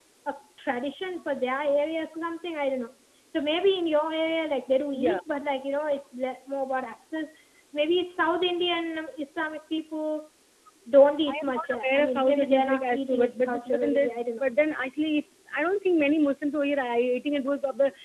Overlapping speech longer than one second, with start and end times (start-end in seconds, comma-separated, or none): 11.3-14.5